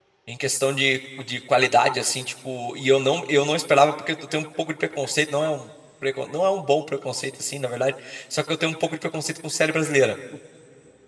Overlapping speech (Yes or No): No